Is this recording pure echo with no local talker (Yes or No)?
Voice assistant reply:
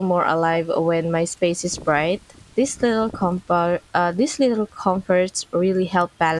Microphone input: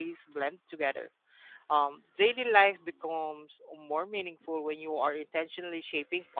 No